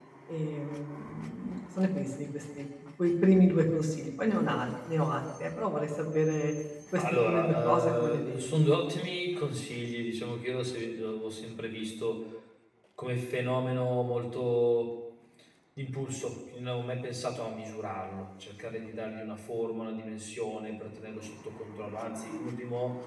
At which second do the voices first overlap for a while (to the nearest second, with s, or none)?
7 s